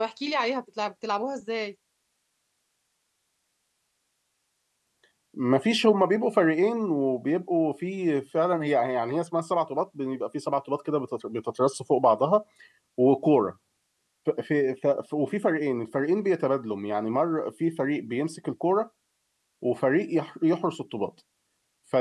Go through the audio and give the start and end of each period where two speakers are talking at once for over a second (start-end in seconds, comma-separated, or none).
none